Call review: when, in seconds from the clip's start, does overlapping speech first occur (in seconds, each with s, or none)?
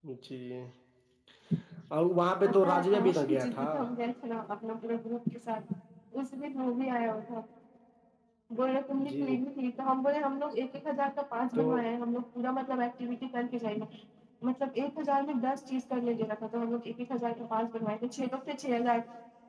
2.5 s